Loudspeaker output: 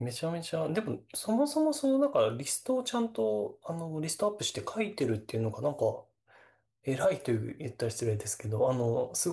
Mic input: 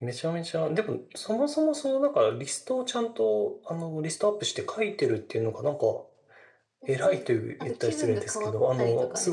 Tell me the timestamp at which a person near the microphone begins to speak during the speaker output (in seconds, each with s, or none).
6.8 s